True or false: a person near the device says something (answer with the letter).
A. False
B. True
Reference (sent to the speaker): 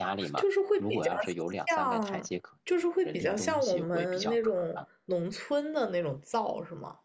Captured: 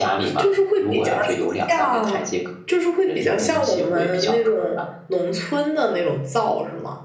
A